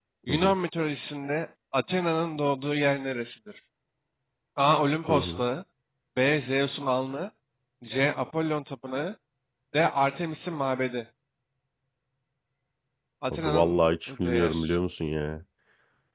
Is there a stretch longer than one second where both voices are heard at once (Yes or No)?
Yes